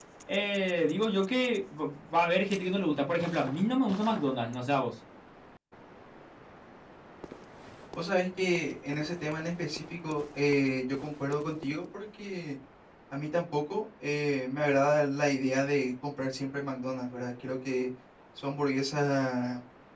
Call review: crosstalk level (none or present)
none